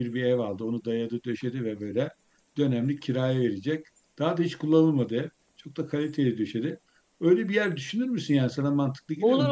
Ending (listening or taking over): taking over